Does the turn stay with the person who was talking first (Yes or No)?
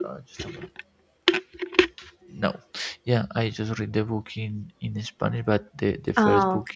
Yes